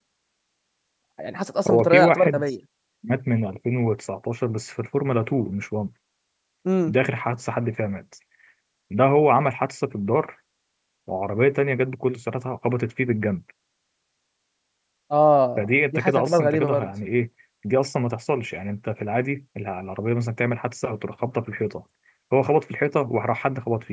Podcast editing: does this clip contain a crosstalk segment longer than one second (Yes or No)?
Yes